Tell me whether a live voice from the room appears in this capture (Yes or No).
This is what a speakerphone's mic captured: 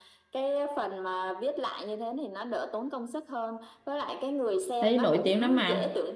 Yes